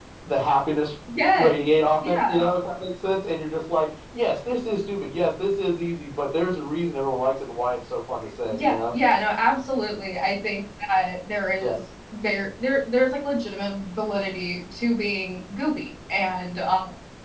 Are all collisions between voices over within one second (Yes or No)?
Yes